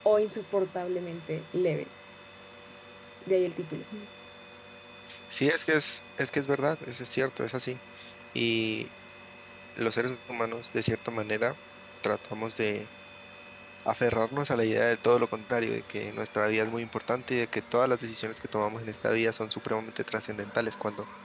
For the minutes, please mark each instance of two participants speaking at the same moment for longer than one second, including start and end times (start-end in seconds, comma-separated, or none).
none